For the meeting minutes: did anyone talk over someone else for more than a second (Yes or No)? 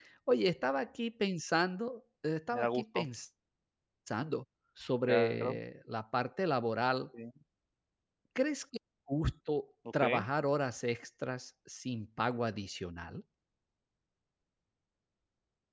No